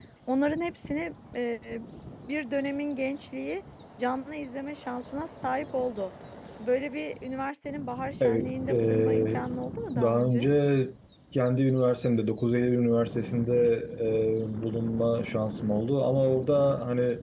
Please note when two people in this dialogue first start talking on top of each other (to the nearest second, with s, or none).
8 s